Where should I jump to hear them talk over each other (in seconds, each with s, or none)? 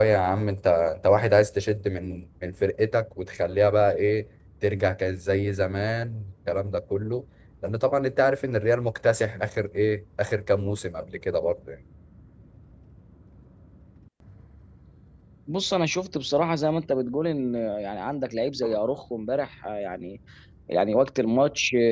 none